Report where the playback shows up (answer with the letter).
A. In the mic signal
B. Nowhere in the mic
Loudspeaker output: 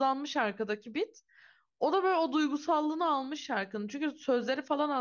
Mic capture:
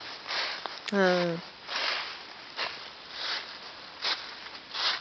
B